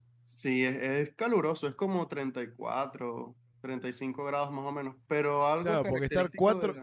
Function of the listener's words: taking over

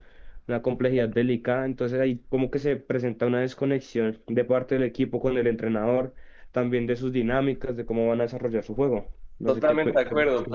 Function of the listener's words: taking over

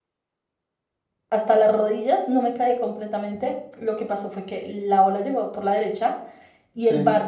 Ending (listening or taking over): listening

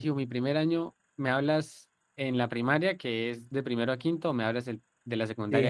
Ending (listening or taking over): taking over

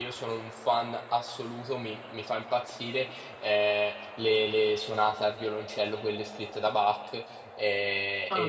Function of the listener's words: listening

